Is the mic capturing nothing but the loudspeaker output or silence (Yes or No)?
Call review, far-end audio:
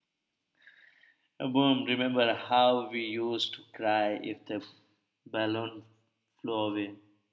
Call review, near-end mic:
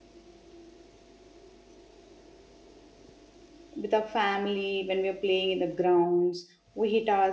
No